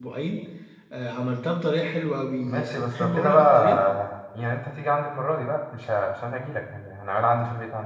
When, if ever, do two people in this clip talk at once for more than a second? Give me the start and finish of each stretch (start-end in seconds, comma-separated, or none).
2.5-3.8